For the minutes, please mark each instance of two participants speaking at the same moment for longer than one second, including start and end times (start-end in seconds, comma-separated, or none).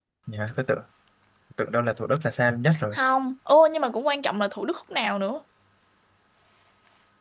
none